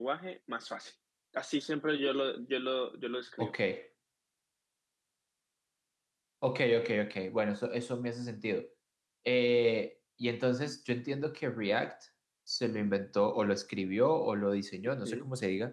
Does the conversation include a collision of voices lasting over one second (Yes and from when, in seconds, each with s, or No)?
No